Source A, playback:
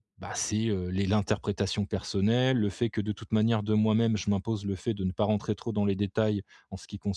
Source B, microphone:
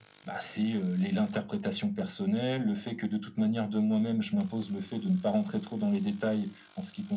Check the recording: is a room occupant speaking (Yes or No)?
No